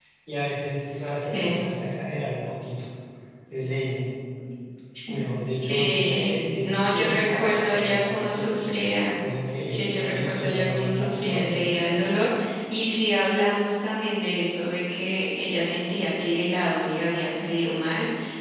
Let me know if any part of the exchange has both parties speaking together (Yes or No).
Yes